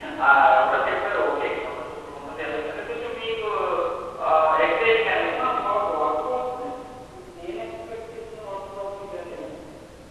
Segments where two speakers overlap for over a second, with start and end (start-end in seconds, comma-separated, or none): none